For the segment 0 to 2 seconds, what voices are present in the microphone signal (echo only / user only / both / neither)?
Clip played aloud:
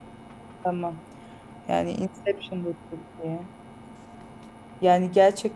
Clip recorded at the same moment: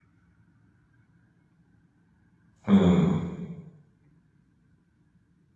neither